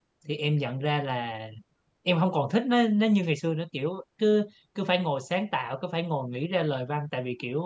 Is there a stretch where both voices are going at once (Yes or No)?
No